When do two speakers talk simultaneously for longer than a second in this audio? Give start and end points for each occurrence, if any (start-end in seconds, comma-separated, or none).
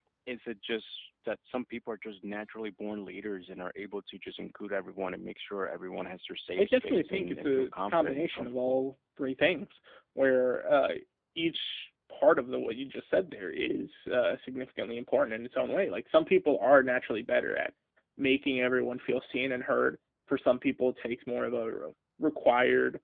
6.6-8.7